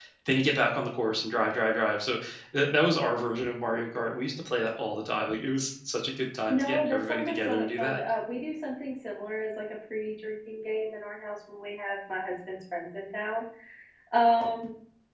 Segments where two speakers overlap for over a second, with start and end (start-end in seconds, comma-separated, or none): 6.5-8.0